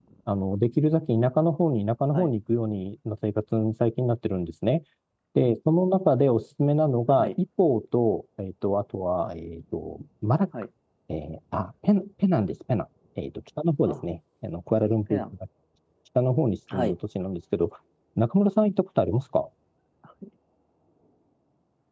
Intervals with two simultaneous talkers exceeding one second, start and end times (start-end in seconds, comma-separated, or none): none